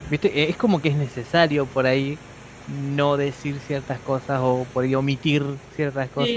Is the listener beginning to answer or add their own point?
Yes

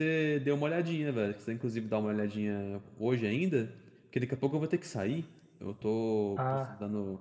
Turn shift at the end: No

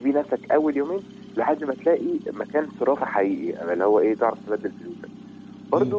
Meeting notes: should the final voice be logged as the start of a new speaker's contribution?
No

